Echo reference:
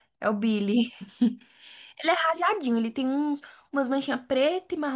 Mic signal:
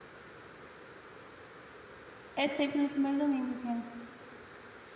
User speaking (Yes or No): Yes